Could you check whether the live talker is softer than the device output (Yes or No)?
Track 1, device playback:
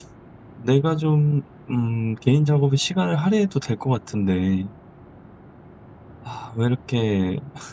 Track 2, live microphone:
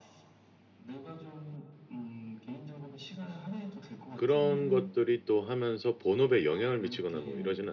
No